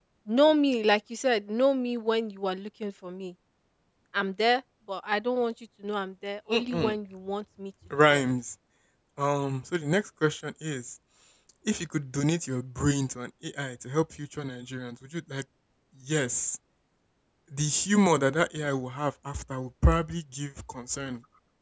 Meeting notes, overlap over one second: none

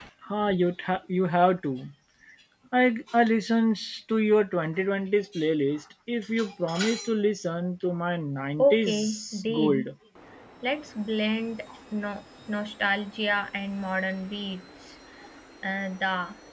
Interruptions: present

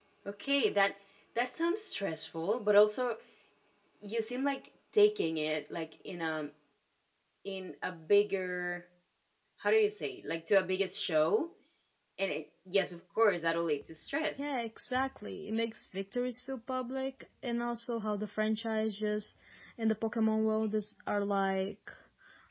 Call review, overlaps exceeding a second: none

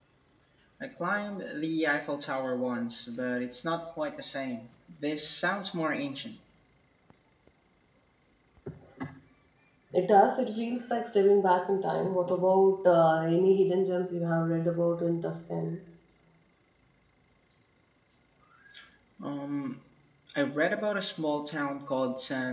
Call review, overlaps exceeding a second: none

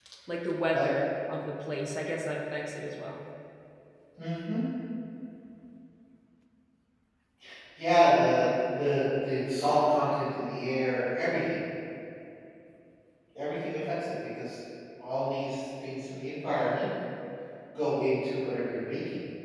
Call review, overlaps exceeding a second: none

